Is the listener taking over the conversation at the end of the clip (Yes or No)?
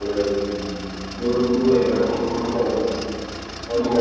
No